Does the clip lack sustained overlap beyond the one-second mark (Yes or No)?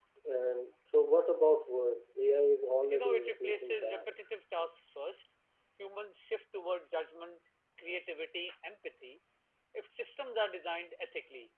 No